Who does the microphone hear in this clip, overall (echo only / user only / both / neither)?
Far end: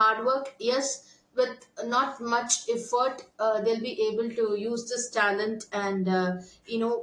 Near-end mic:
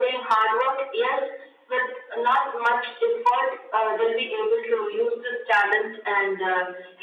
echo only